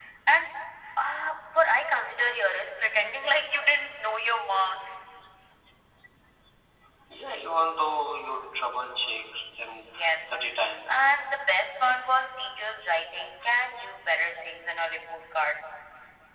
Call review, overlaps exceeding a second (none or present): none